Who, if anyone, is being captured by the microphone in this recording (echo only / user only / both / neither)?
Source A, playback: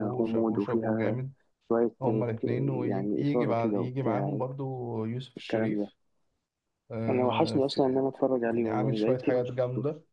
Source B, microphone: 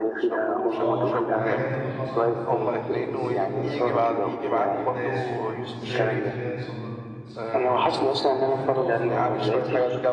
both